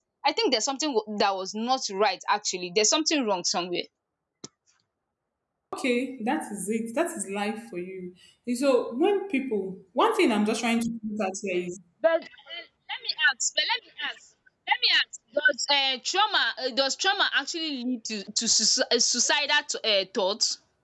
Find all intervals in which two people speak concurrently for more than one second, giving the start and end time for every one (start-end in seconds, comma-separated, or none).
none